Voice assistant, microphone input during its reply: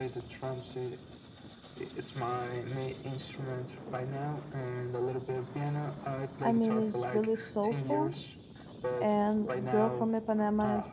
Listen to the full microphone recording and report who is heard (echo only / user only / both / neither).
both